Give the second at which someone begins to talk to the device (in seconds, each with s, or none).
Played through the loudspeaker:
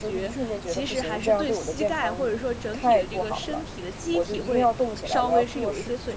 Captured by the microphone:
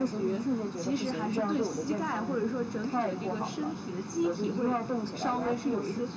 none